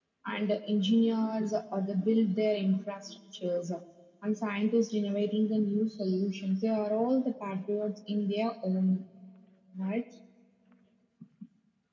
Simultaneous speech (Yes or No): No